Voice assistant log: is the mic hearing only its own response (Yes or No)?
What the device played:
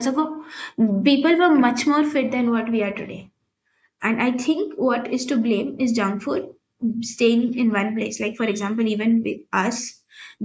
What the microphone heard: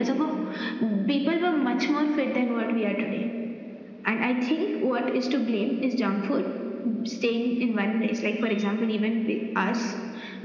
Yes